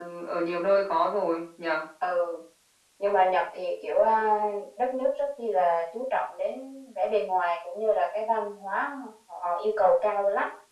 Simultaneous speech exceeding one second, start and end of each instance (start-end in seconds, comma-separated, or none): none